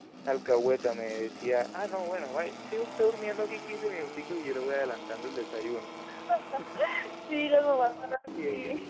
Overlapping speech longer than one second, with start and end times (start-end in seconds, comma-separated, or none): none